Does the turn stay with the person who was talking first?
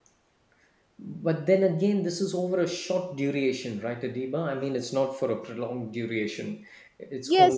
No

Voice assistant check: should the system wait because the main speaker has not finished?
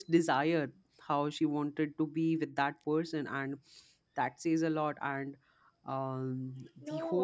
No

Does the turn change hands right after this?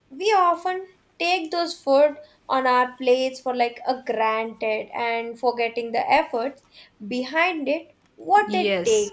Yes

